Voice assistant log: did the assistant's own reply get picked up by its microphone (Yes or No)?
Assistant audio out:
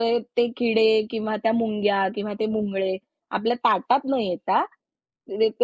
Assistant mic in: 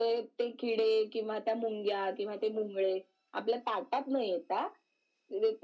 Yes